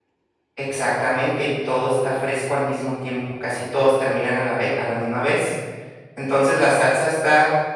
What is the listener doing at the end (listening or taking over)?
listening